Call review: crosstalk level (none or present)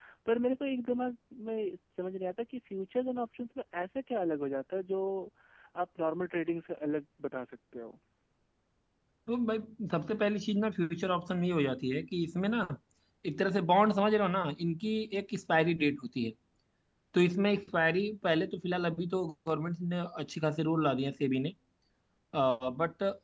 none